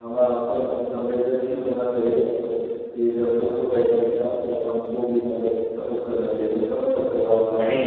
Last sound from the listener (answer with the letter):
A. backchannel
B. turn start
B